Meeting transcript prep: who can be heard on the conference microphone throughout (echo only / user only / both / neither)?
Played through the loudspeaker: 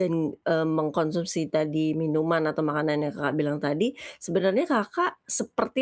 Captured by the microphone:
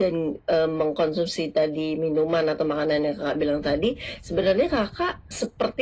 echo only